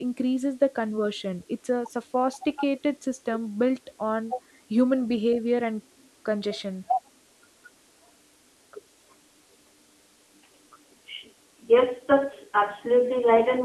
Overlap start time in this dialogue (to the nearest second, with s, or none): none